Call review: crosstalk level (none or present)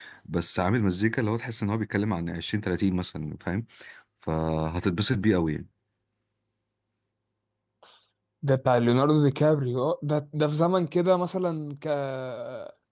none